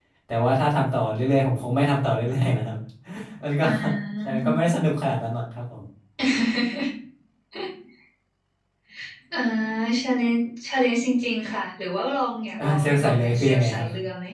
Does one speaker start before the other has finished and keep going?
Yes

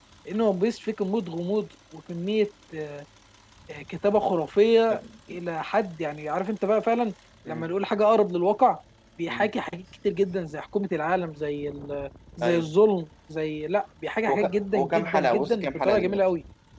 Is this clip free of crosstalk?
No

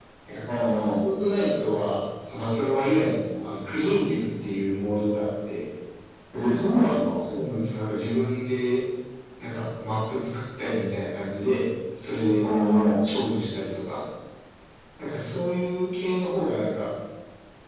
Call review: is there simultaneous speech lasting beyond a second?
No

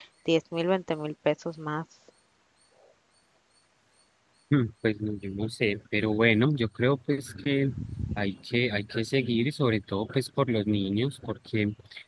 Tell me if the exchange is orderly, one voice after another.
Yes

